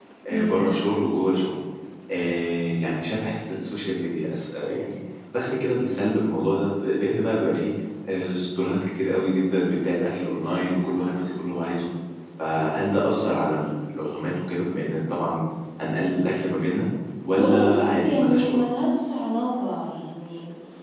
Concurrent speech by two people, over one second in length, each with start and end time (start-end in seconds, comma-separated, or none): 17.4-18.7